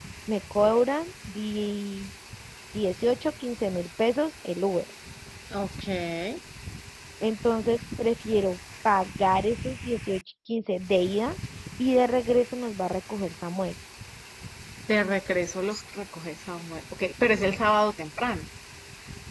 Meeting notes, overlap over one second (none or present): none